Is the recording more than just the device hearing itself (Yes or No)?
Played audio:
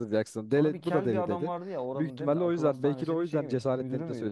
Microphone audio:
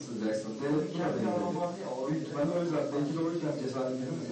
Yes